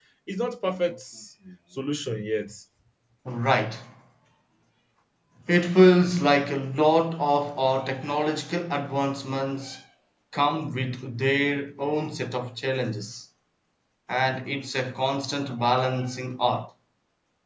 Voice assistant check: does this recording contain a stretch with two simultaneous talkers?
No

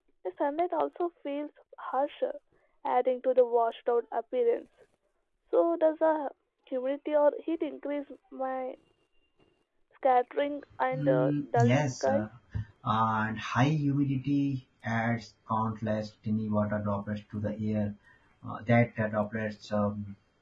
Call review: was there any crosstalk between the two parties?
Yes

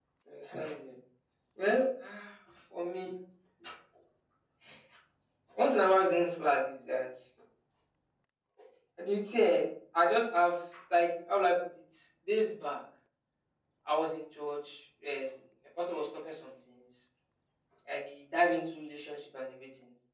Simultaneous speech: No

